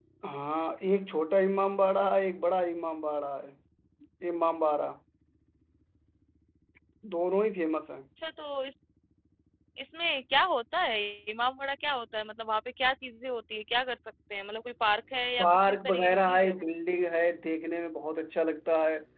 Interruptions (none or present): present